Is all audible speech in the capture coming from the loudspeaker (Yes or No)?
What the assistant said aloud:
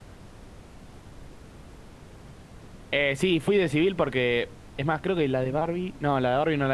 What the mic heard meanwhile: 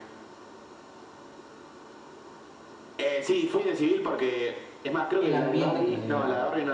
No